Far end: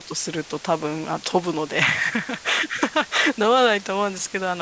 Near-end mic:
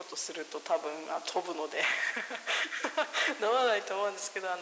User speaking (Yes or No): No